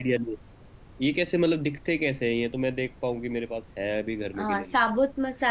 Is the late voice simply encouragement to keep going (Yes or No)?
No